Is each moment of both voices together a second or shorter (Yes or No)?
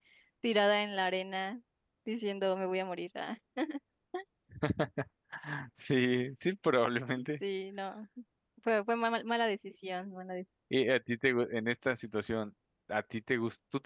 Yes